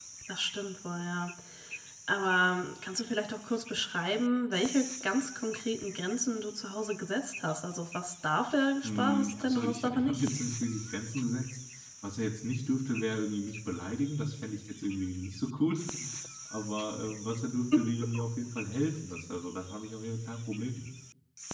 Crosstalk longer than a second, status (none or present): present